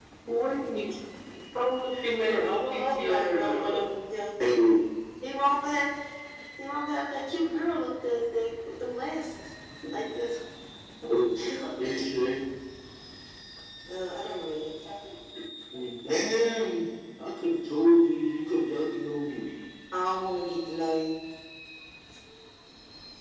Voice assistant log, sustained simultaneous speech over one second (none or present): present